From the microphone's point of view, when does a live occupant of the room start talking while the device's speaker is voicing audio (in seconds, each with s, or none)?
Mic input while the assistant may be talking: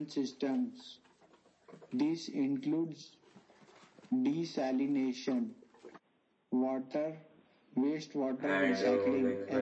8.4 s